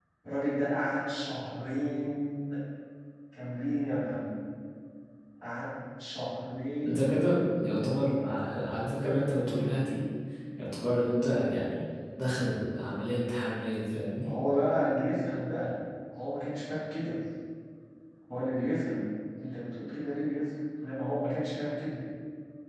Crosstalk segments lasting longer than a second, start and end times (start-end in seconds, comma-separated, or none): none